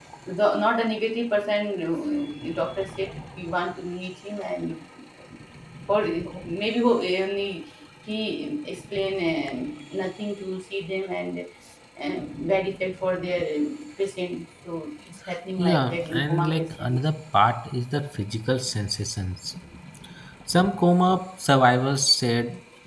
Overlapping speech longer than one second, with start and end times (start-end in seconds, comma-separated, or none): 15.6-17.0